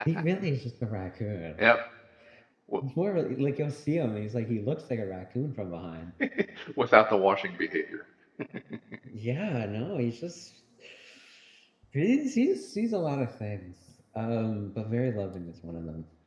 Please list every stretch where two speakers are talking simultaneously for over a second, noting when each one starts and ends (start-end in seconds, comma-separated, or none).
none